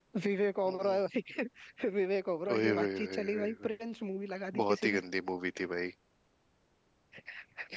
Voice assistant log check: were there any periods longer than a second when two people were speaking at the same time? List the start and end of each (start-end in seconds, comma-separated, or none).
2.5-3.7